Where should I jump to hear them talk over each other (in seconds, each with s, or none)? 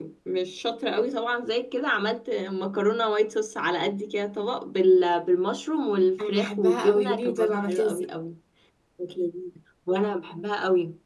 6.2 s